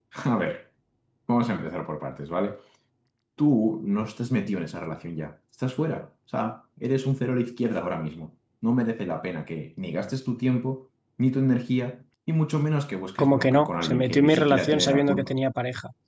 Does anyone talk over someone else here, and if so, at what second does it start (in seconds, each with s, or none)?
13.2 s